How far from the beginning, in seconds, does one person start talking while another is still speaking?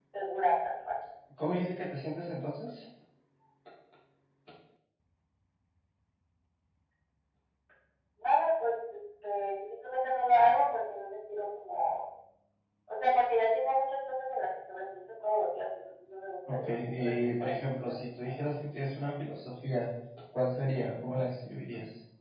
16.5 s

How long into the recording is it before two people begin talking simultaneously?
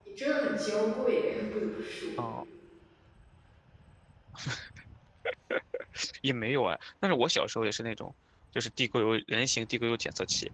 none

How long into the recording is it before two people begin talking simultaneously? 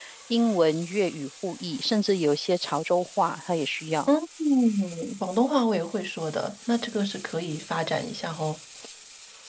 none

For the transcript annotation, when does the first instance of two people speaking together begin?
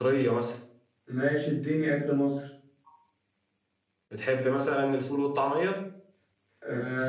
none

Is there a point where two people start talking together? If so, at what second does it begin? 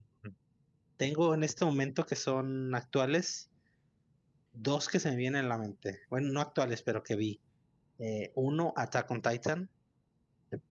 none

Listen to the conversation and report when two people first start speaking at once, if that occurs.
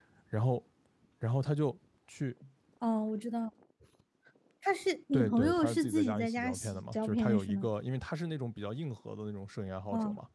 5.1 s

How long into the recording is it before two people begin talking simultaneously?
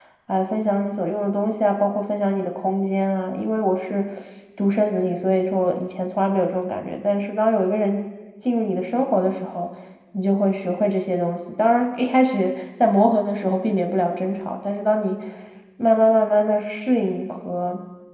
none

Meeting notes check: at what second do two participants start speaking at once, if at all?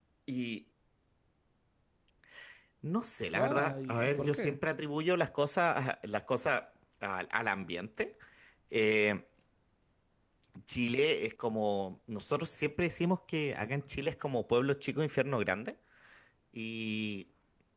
3.3 s

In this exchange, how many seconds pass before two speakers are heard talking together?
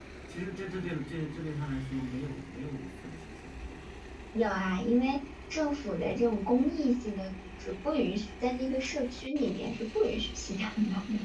none

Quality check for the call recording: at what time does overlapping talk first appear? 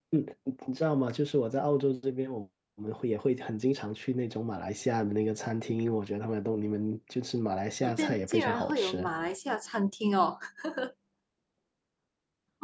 7.8 s

